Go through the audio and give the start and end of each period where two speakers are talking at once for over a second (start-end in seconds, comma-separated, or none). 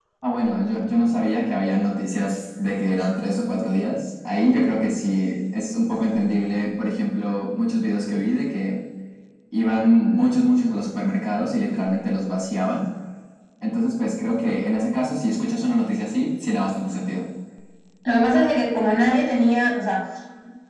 none